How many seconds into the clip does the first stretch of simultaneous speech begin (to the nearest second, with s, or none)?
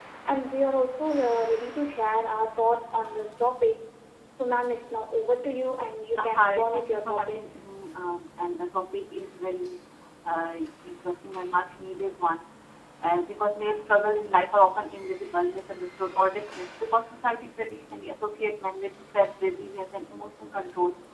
6 s